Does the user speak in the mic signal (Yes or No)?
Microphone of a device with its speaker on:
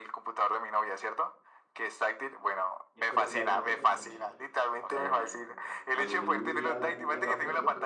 Yes